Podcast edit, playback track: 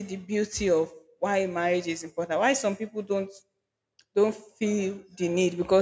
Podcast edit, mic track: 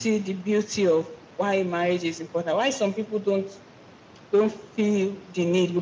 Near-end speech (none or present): none